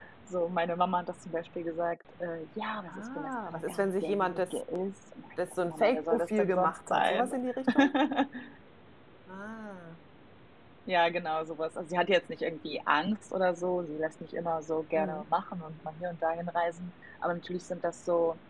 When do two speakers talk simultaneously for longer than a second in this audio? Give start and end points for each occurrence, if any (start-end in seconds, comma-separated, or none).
2.9-4.6, 5.7-7.3